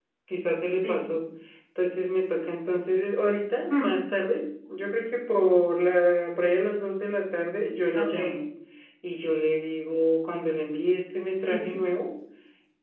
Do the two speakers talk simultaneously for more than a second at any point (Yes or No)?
No